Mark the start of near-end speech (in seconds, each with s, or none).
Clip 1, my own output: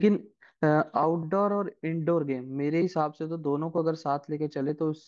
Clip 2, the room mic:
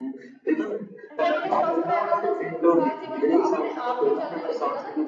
1.2 s